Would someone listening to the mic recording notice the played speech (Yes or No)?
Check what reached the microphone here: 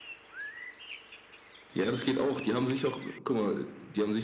Yes